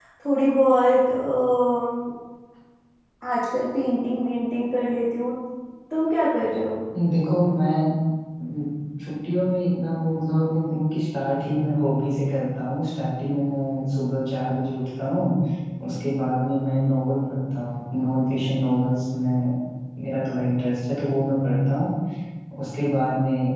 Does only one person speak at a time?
Yes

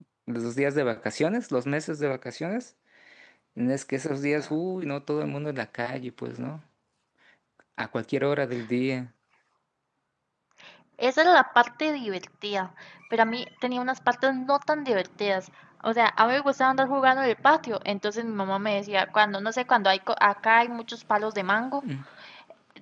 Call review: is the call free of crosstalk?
Yes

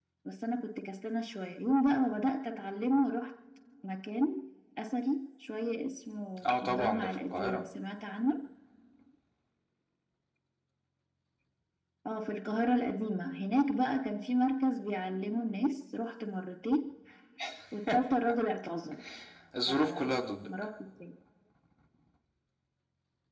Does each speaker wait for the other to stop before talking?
No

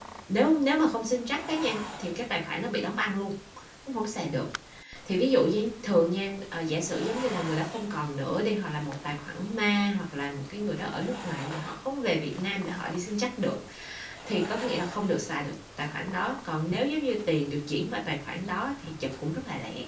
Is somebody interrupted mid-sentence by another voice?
No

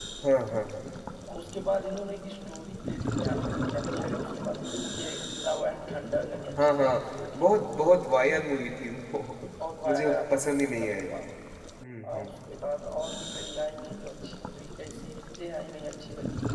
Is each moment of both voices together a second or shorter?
No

